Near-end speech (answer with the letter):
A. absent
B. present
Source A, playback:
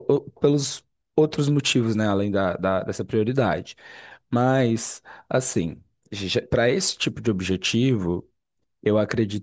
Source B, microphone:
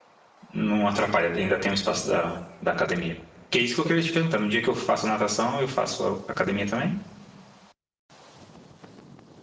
B